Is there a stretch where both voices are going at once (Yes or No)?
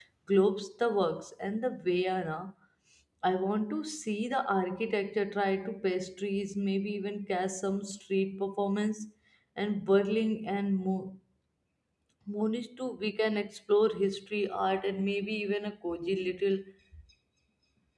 No